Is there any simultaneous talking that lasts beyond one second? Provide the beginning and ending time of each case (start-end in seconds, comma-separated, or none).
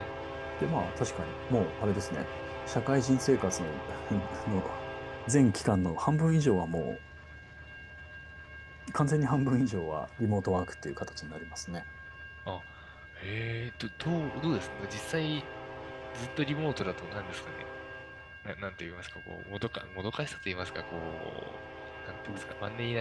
none